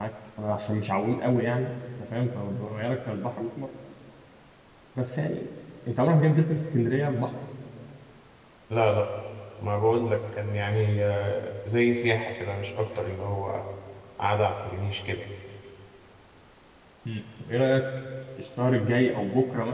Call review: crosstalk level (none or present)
none